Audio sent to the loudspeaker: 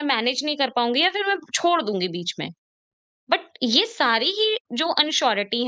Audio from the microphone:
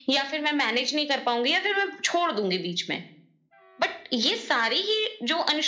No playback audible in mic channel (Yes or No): No